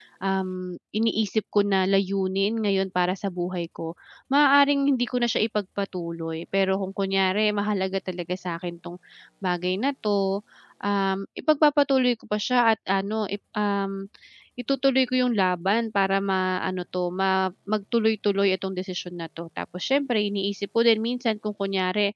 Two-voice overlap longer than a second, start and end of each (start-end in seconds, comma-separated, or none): none